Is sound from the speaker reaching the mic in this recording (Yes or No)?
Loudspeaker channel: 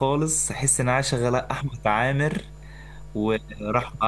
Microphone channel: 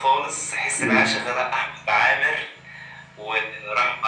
Yes